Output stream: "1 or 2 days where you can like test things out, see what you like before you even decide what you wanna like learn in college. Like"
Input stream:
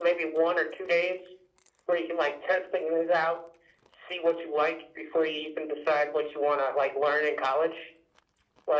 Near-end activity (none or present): none